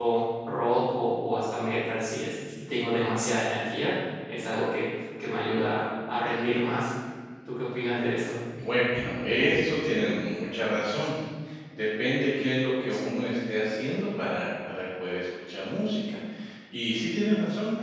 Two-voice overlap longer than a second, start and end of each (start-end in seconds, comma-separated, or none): none